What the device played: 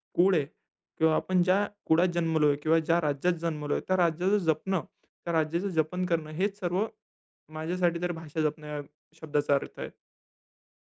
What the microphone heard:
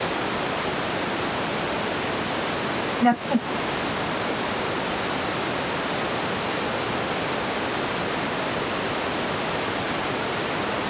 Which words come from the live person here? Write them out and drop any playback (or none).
नक्कीच.